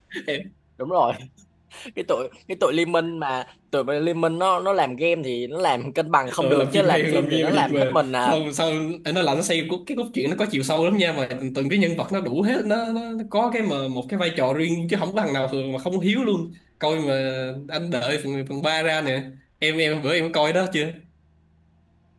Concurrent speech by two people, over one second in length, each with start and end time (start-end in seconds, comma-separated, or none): 6.4-8.3